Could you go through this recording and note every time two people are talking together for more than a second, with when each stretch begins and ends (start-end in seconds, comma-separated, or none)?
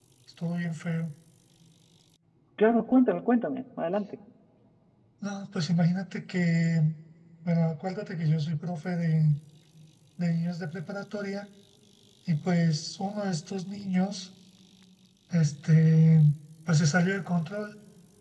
none